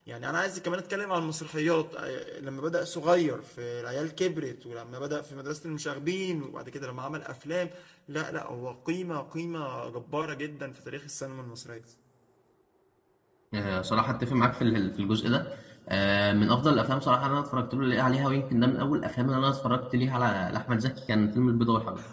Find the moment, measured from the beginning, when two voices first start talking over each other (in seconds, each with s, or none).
none